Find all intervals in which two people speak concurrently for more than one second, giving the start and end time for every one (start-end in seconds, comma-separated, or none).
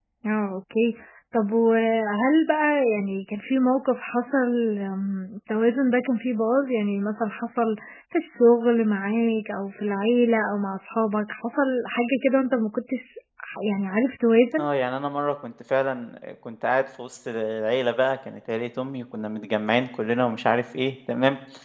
none